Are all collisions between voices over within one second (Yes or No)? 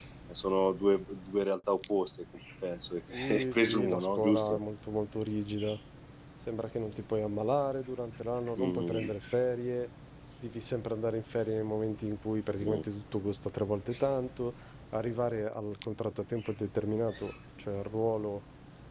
No